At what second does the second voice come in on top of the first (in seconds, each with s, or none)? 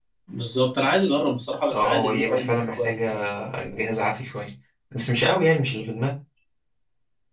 1.7 s